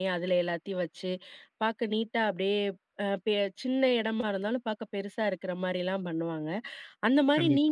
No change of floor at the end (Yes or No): Yes